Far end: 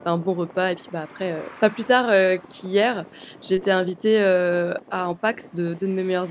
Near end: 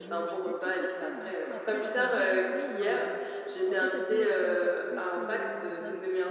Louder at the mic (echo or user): echo